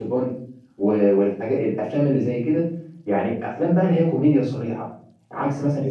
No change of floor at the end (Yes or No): Yes